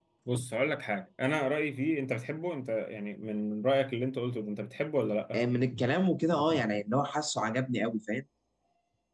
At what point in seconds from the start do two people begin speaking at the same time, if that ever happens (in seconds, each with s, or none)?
none